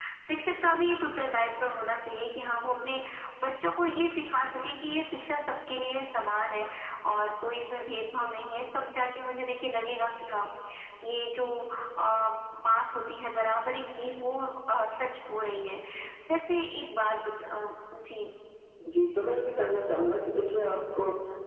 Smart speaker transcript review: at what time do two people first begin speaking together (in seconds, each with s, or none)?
none